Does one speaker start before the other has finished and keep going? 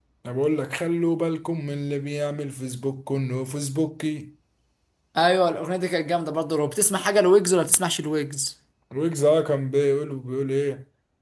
No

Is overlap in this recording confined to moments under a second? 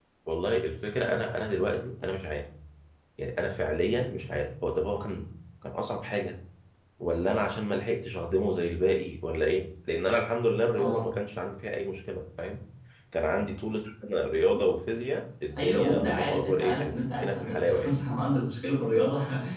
No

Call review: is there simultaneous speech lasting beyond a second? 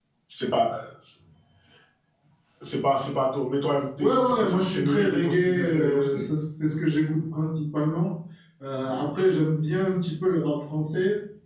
Yes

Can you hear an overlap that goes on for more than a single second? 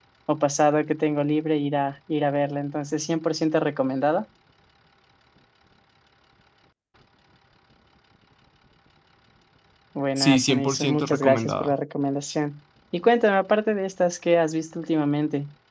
Yes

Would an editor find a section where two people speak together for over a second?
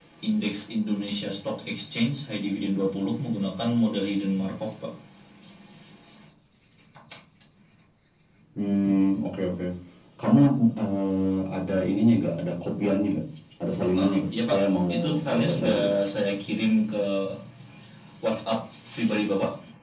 Yes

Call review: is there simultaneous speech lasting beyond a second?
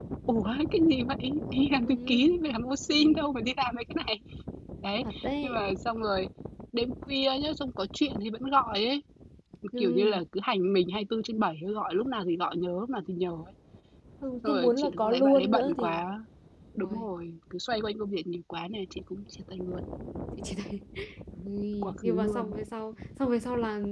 Yes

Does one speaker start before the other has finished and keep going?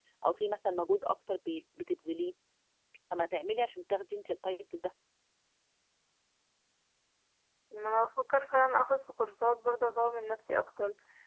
No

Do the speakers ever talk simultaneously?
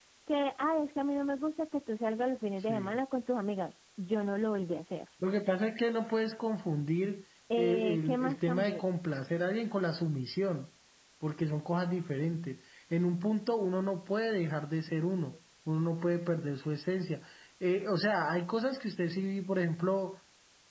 Yes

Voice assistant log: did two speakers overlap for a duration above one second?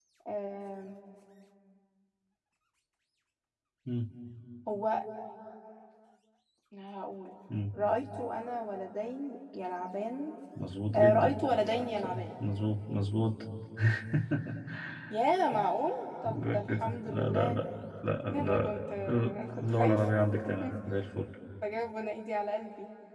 Yes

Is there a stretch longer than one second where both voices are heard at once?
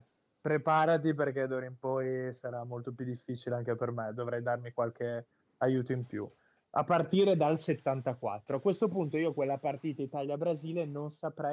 No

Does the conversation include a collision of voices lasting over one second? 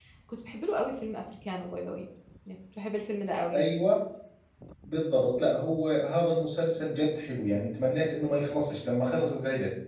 No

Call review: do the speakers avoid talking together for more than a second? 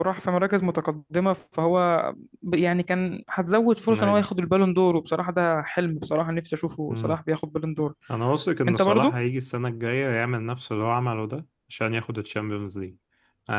Yes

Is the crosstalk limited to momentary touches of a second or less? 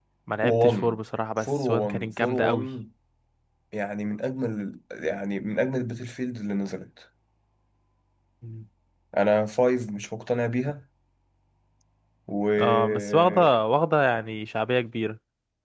No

